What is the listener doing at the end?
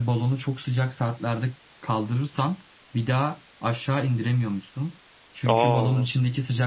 listening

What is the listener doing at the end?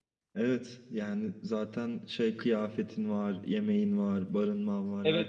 taking over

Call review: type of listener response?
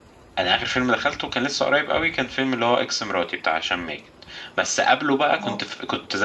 listening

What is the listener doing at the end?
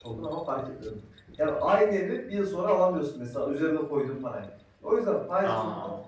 listening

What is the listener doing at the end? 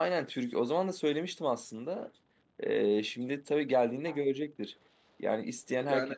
listening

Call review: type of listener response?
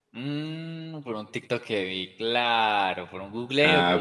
taking over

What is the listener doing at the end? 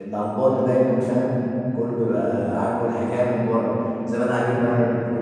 listening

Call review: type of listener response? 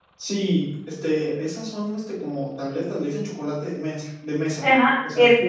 taking over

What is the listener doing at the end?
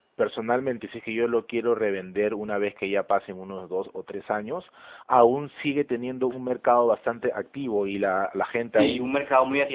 taking over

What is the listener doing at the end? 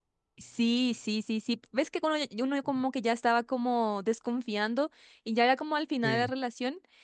listening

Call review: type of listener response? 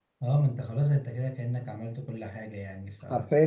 taking over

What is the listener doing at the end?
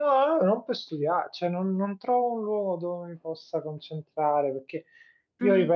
listening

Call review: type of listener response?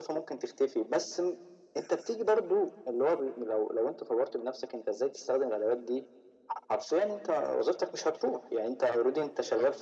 listening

